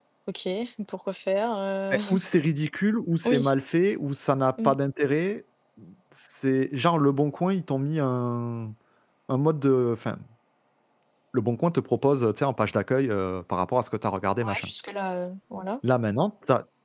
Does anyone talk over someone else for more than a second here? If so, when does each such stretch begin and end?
none

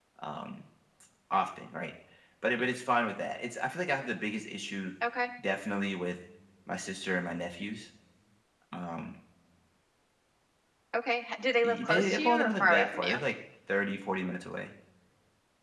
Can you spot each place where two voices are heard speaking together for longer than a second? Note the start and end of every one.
11.6-13.2

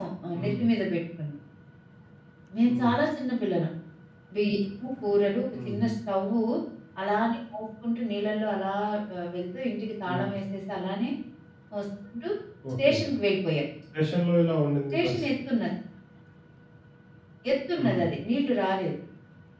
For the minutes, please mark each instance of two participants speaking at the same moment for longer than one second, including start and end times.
none

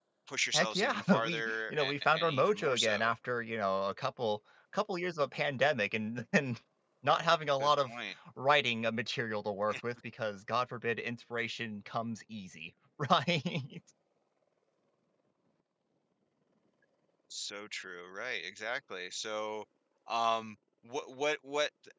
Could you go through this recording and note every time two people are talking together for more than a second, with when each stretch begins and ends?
0.5-3.1

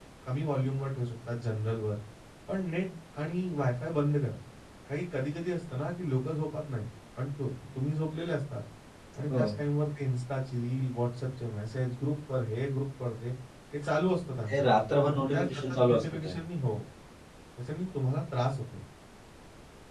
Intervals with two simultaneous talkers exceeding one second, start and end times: 15.1-16.3

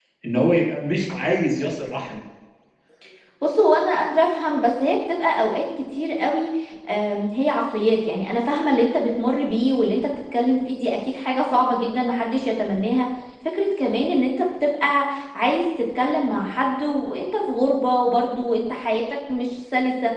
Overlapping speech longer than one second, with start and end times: none

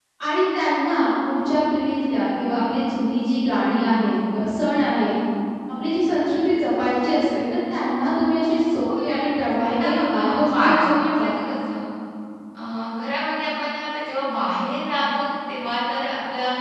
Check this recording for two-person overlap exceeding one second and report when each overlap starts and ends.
9.0-11.3

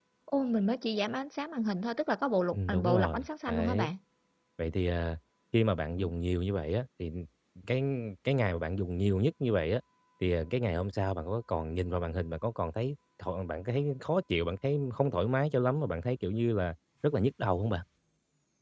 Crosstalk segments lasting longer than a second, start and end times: 2.5-3.9

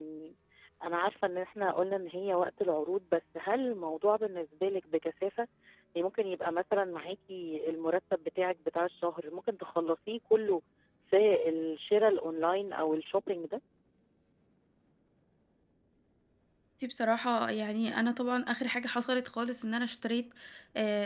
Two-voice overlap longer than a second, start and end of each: none

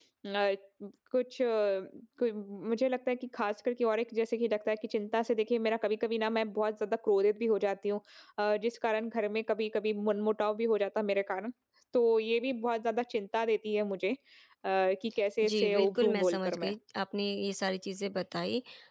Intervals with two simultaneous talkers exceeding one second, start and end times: 15.4-16.7

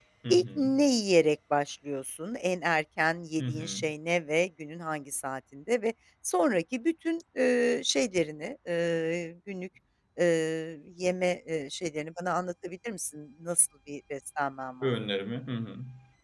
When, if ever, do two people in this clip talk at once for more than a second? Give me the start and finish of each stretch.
none

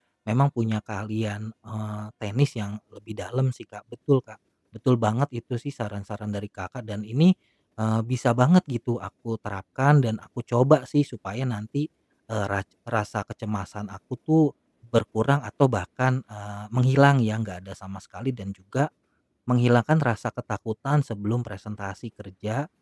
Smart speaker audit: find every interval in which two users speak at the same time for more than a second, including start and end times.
none

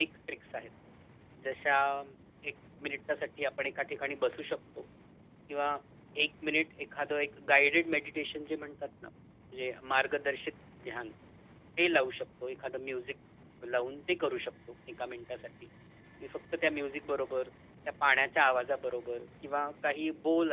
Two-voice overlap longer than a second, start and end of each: none

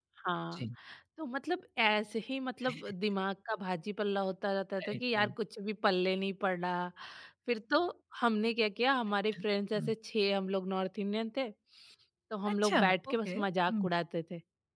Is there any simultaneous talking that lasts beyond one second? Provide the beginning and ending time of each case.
12.6-13.9

